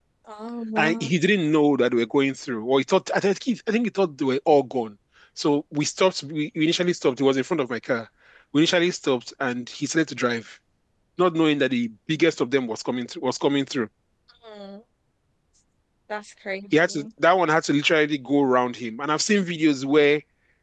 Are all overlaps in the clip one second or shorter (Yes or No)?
Yes